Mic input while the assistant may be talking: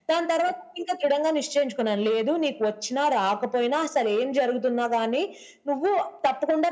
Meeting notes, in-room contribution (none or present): none